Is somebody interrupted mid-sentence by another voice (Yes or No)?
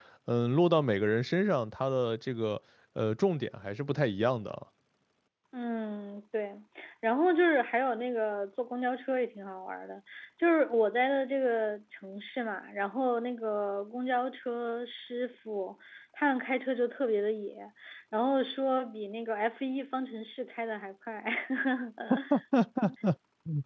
No